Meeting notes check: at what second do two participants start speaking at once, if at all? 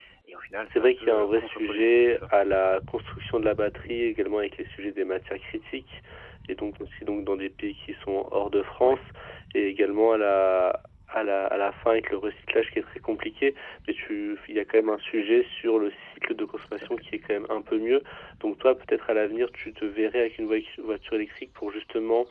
0.7 s

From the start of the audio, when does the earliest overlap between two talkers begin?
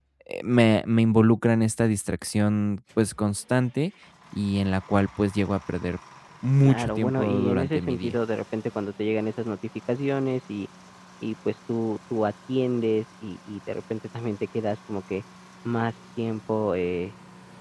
6.6 s

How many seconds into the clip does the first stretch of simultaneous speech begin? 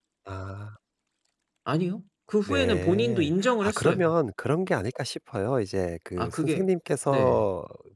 2.5 s

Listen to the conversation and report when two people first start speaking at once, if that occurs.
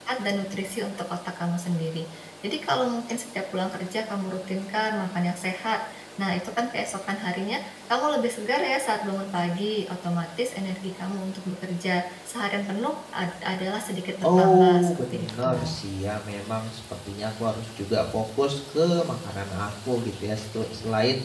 14.2 s

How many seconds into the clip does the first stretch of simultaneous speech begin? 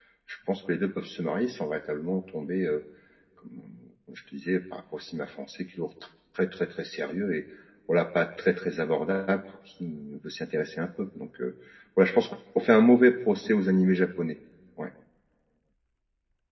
none

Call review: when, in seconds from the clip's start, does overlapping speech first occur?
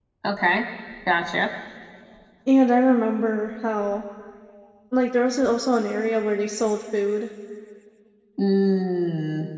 none

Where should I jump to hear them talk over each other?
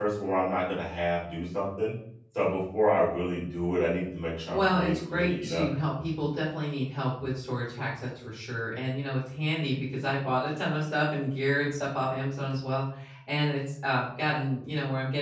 4.5 s

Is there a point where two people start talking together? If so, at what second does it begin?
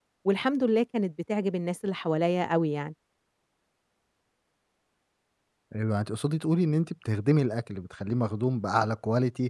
none

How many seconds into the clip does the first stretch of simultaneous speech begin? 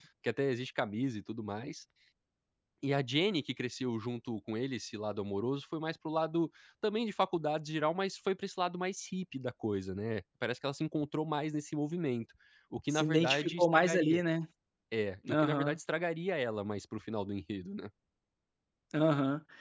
12.9 s

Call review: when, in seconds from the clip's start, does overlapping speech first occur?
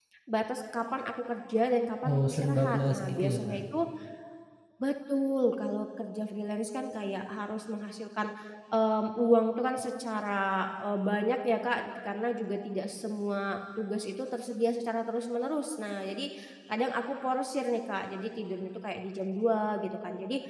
2.0 s

